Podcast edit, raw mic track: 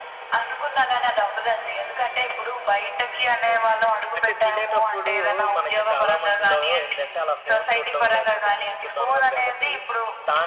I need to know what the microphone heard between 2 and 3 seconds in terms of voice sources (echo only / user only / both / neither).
echo only